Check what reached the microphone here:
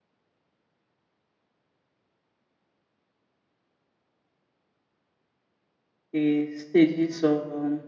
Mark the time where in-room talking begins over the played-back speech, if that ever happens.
6 s

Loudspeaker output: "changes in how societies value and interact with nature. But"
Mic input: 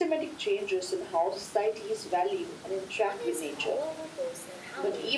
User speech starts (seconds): 3 s

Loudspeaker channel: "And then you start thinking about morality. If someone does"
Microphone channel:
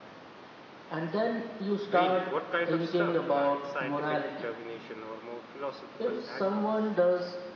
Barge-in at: 2 s

